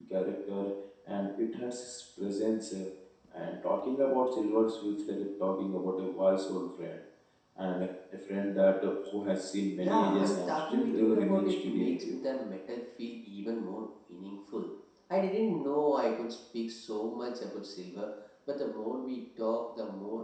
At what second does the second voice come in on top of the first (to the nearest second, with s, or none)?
10 s